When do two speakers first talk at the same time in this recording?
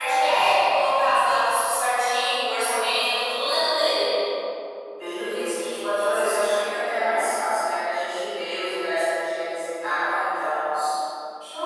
none

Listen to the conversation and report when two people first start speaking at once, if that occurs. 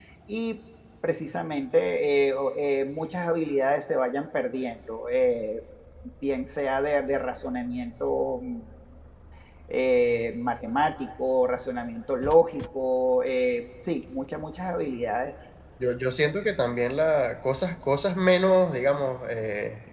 none

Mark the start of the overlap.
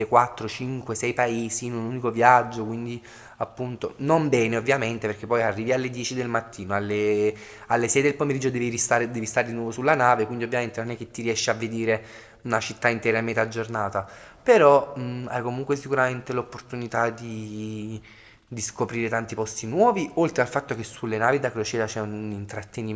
none

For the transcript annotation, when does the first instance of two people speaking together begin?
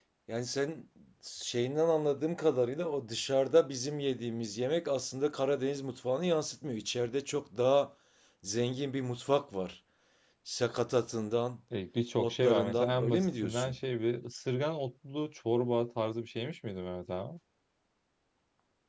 12.2 s

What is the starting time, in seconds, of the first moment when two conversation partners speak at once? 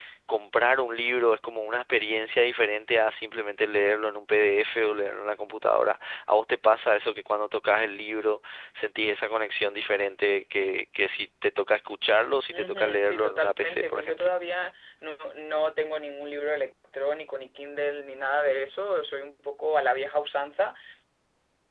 12.5 s

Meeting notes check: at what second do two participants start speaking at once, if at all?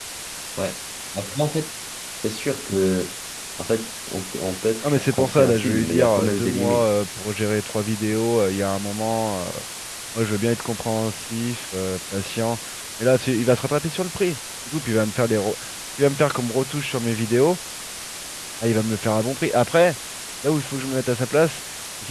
4.8 s

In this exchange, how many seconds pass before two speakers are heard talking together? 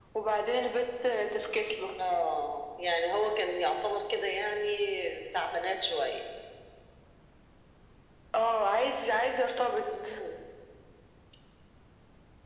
none

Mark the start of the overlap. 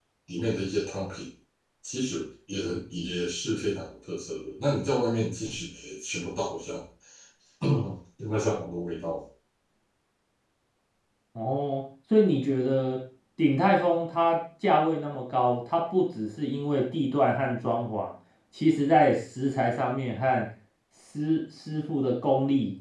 none

